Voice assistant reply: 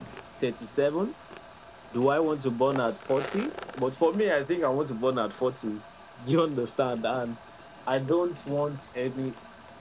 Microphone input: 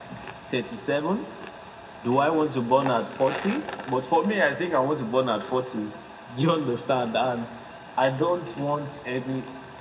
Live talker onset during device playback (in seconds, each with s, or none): none